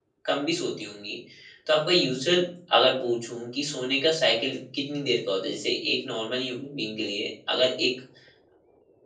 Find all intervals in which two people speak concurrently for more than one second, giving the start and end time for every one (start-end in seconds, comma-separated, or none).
none